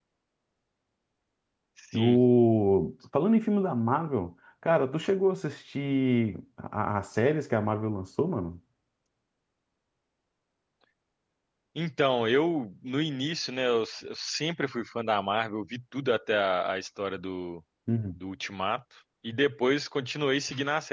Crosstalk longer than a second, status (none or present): none